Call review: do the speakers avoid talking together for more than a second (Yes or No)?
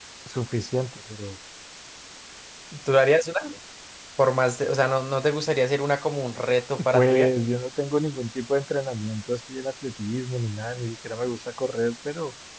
Yes